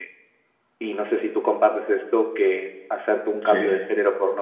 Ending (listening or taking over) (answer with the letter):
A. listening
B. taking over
A